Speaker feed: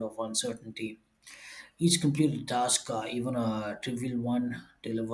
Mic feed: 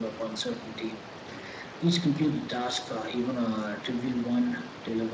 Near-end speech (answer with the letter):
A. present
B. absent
B